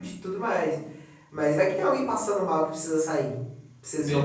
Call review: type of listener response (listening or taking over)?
taking over